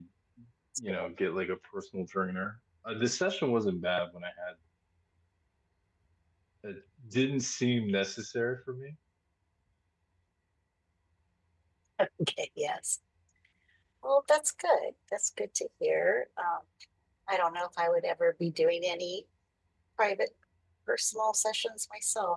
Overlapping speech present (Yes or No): No